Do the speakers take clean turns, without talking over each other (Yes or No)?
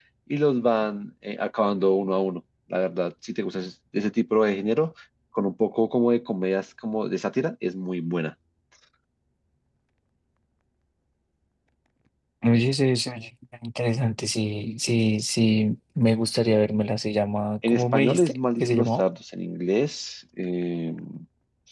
No